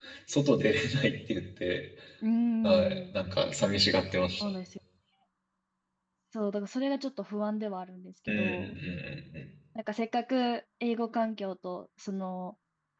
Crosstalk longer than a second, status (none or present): none